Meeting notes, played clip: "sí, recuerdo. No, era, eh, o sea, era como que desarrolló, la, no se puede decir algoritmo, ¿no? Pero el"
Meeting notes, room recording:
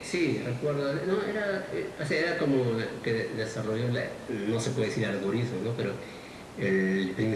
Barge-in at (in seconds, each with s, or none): none